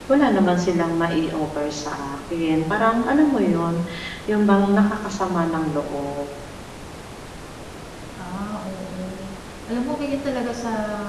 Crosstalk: none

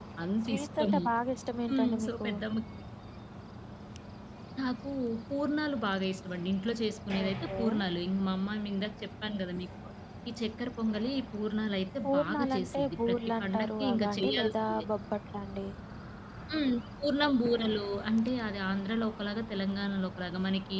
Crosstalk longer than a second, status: present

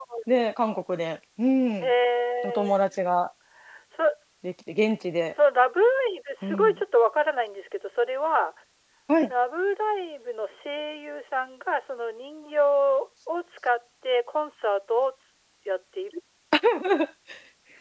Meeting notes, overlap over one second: none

